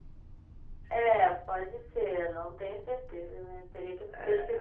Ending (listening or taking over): listening